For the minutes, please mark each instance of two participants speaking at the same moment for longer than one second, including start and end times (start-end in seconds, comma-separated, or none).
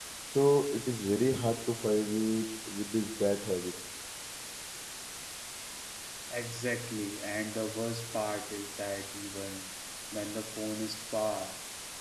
none